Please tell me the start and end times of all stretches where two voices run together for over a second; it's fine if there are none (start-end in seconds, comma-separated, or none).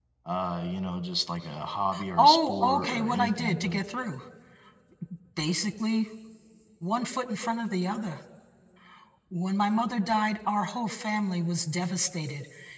2.2-3.8